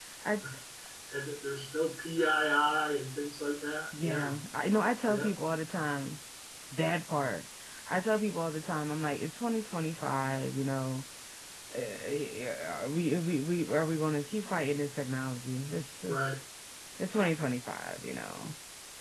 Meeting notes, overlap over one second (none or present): none